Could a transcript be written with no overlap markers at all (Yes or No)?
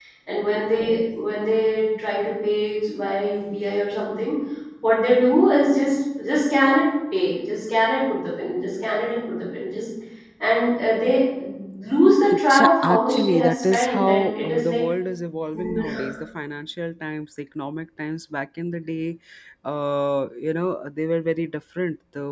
No